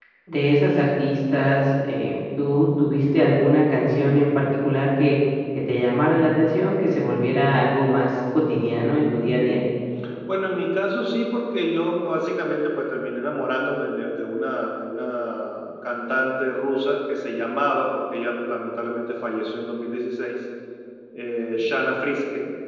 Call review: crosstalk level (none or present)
none